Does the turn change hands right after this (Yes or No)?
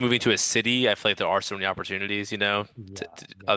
No